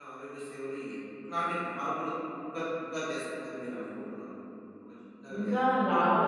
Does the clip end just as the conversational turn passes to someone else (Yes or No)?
Yes